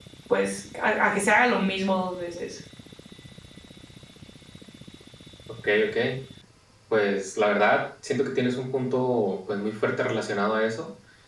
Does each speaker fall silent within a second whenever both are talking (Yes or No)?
Yes